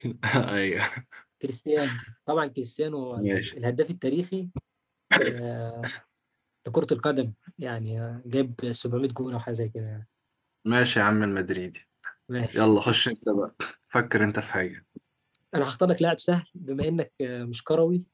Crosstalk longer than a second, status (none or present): none